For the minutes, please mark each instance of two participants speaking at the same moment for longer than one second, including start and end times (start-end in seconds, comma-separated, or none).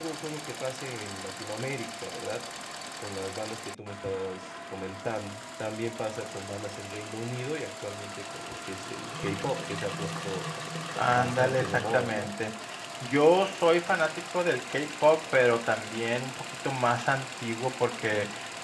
11.1-12.3